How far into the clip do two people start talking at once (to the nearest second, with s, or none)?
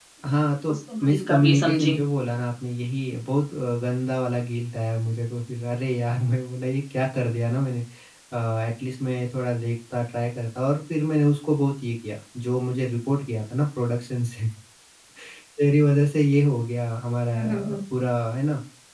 1 s